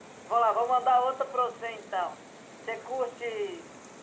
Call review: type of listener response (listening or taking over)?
listening